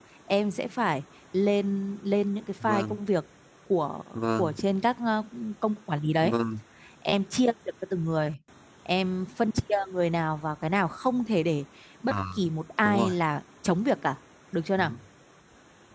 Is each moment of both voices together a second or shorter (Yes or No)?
Yes